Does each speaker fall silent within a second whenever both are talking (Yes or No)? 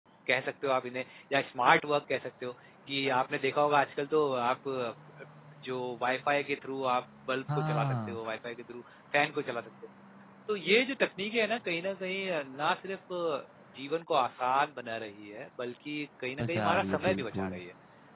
No